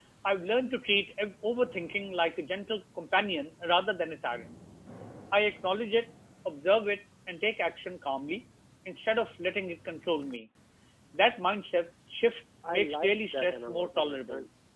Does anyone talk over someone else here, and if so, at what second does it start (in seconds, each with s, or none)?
12.6 s